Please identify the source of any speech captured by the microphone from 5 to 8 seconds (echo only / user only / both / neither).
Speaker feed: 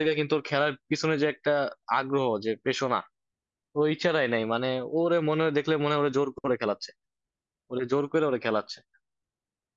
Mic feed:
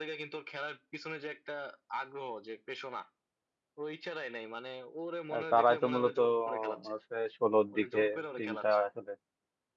both